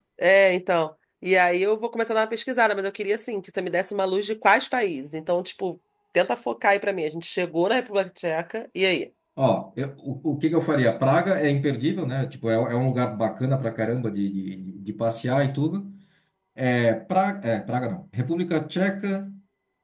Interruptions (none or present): none